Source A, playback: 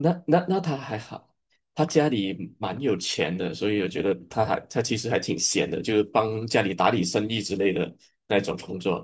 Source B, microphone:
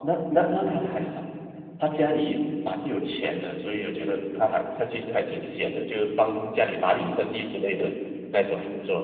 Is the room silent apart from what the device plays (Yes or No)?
Yes